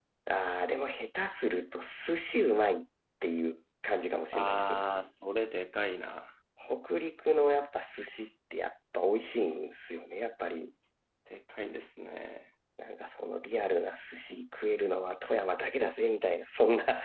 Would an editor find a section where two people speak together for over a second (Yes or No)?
No